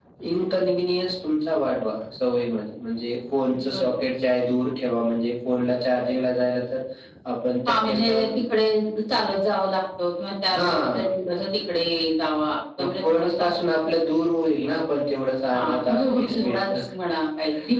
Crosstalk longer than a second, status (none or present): present